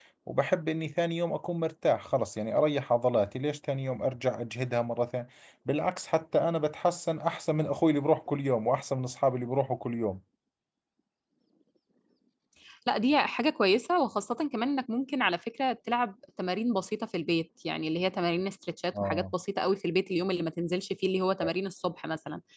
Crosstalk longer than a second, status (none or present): none